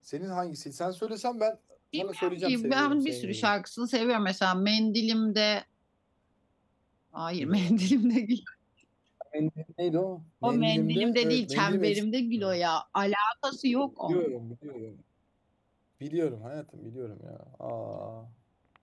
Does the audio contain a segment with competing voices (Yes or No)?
Yes